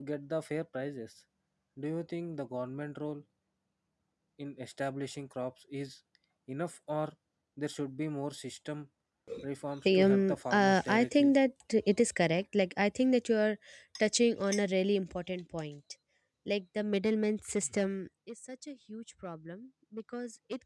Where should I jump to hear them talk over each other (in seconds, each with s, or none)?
10.0 s